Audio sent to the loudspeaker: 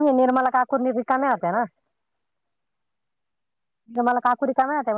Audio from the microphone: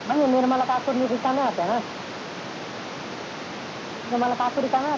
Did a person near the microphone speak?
No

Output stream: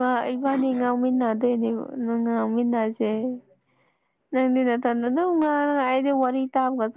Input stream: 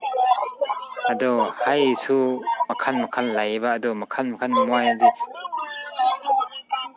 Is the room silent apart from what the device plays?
No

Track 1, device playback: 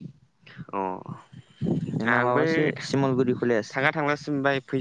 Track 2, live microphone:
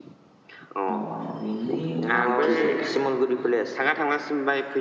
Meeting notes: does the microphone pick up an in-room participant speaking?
Yes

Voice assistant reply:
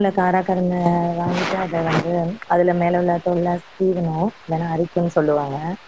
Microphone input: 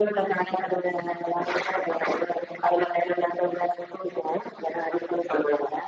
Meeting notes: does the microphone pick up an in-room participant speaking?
No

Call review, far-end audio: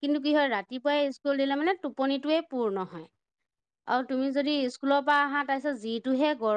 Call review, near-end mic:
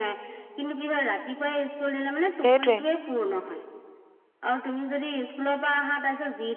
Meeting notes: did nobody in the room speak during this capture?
No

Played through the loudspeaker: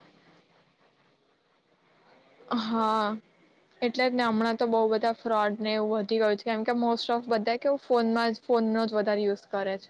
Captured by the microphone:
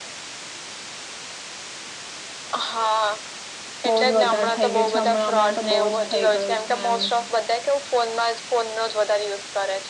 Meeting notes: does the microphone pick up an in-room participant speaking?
Yes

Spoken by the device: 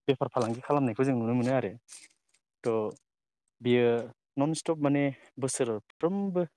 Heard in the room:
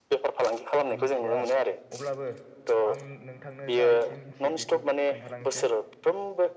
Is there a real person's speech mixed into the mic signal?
Yes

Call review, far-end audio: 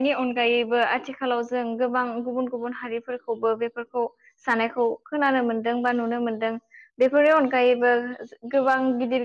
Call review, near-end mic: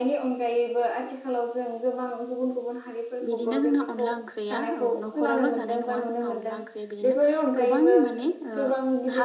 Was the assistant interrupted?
Yes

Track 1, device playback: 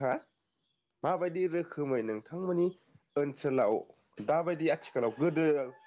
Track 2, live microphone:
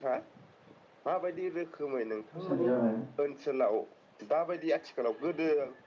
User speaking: Yes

